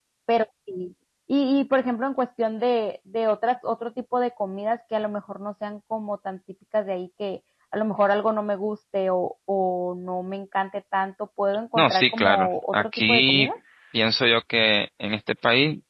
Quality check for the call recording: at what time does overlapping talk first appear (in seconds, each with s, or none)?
11.8 s